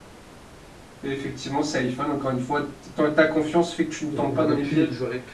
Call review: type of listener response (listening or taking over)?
taking over